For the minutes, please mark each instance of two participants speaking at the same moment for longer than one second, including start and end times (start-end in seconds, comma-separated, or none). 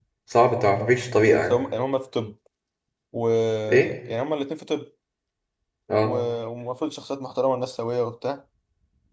none